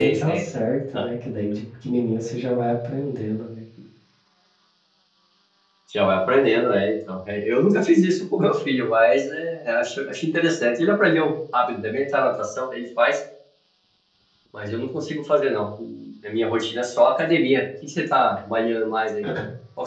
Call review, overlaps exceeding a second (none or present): none